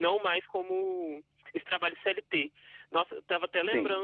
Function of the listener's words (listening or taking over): listening